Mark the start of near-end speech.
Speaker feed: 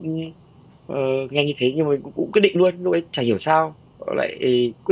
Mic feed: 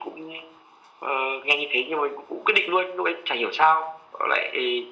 none

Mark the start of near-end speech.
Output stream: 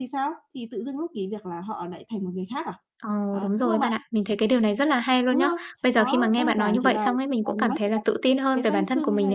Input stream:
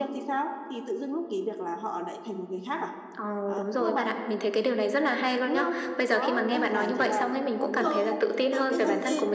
7.5 s

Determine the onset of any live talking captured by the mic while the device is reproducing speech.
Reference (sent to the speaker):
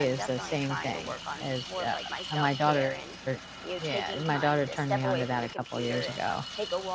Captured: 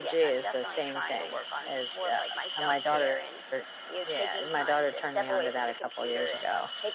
none

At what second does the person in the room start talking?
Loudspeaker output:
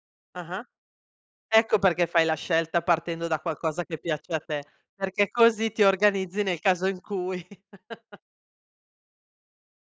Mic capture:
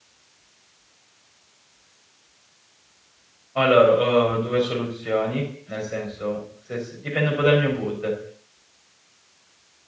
3.5 s

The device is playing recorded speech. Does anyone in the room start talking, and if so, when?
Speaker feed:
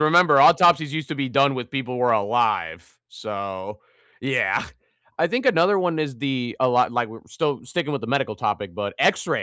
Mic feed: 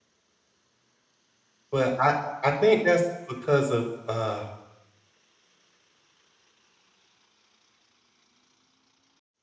1.7 s

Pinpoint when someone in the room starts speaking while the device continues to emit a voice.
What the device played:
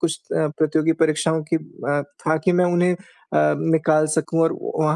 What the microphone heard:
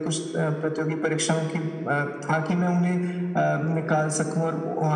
none

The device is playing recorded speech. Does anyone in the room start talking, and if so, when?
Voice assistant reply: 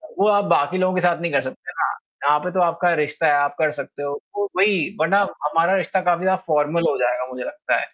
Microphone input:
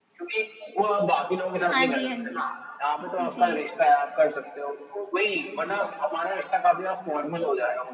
1.7 s

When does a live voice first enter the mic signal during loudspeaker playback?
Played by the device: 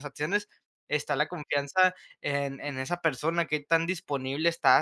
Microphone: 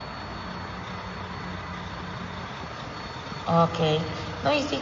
3.4 s

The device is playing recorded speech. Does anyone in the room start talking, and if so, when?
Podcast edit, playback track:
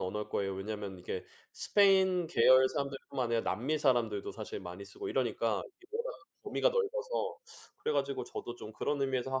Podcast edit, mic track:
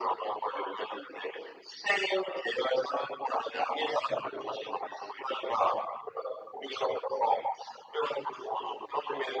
none

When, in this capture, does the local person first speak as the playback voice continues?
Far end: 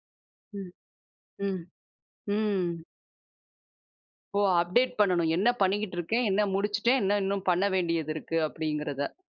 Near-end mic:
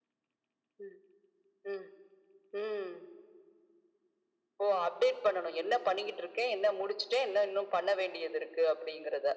none

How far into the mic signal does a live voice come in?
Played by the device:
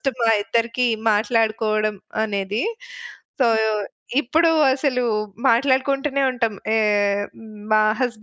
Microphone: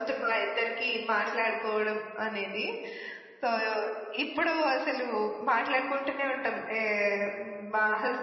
none

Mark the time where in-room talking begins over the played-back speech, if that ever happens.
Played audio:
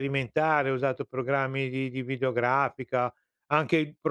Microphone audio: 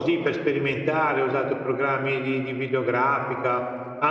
none

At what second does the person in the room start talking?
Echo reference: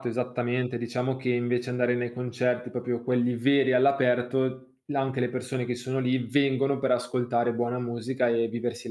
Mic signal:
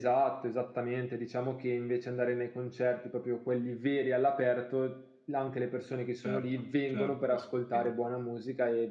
6.2 s

